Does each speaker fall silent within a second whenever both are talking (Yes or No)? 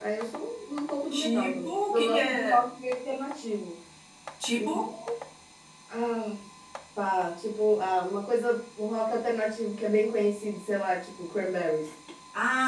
No